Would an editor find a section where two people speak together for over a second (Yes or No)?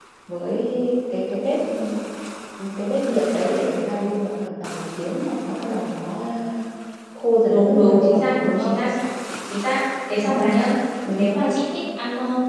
Yes